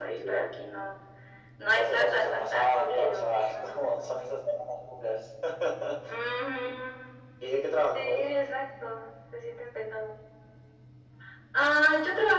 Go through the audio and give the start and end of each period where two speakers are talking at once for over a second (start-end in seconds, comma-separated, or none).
1.8-4.2